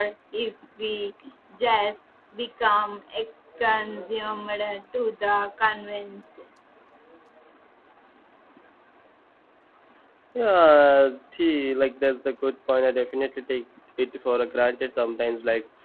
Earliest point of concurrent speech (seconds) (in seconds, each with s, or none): none